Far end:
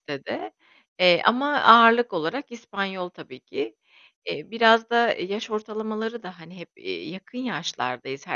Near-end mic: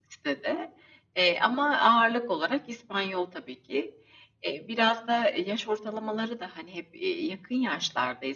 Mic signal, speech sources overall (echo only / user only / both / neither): echo only